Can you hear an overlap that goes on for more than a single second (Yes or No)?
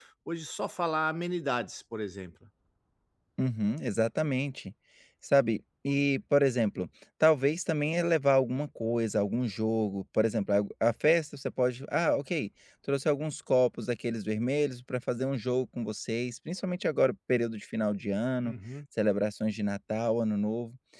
No